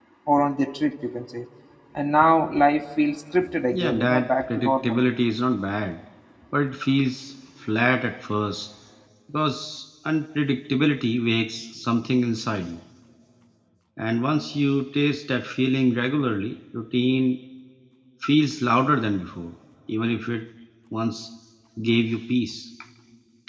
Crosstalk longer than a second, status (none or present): present